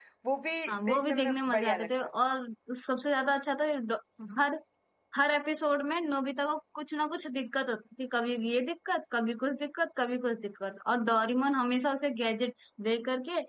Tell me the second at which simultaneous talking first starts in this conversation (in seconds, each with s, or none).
0.7 s